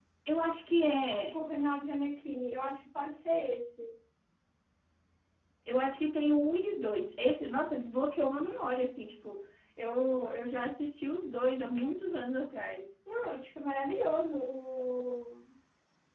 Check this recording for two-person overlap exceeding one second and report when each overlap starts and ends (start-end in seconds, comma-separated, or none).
none